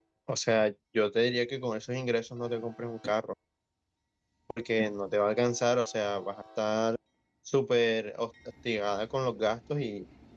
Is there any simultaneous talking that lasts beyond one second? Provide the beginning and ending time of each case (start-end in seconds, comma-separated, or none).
none